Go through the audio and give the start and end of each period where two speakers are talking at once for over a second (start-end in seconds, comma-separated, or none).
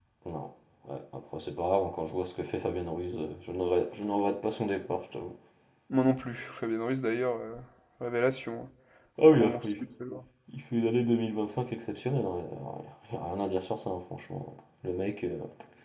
none